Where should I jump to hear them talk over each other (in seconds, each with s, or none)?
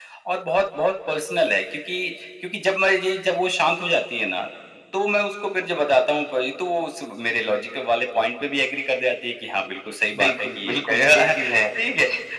10.1 s